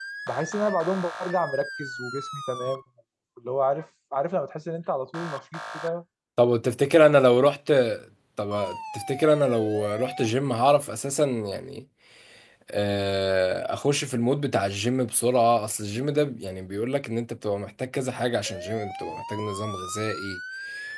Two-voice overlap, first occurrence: none

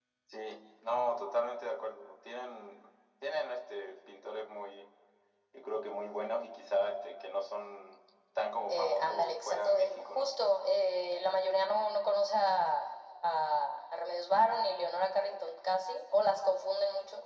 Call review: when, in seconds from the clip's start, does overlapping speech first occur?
8.7 s

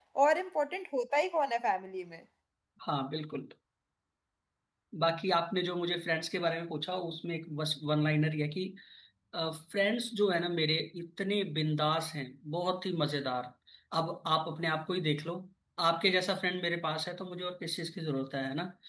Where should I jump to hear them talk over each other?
none

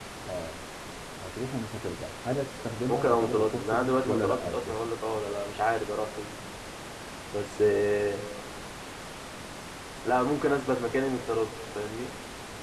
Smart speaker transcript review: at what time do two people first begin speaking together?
2.9 s

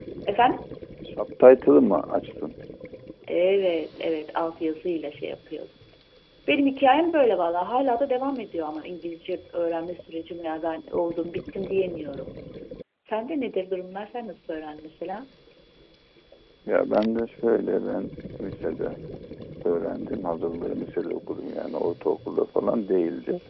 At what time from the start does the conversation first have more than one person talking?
none

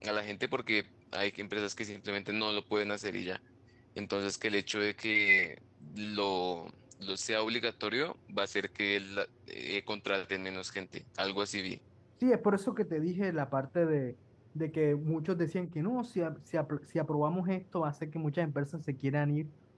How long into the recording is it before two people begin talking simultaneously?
none

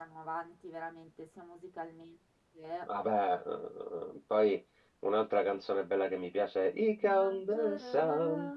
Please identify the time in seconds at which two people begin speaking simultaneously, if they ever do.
7.0 s

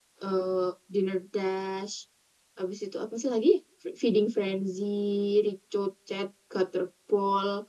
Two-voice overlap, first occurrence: none

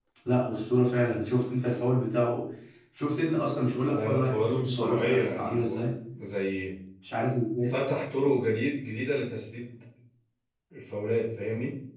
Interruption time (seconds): 3.9 s

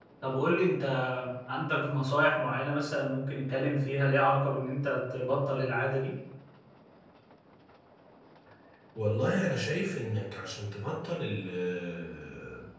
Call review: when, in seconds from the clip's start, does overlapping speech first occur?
none

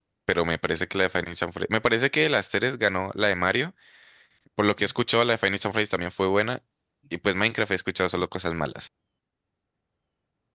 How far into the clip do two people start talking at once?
none

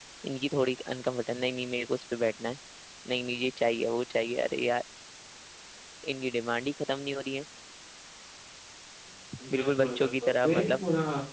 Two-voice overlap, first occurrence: 9.6 s

